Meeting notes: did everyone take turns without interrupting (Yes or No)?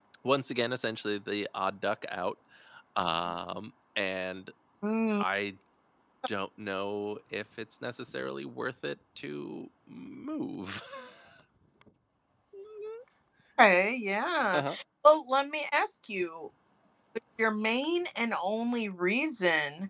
Yes